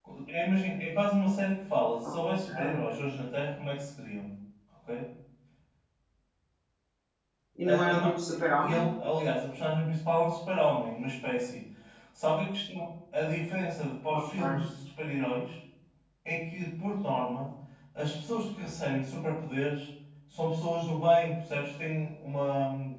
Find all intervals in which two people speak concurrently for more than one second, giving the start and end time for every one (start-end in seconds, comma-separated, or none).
none